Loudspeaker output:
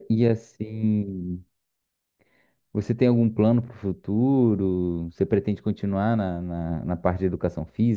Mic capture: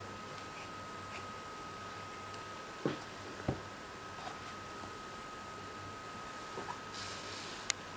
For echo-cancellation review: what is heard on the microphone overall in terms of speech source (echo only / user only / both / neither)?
neither